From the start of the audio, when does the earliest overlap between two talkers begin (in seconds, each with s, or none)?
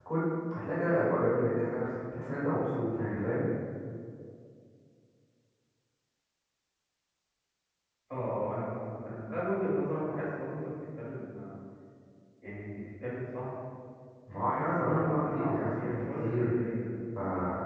14.4 s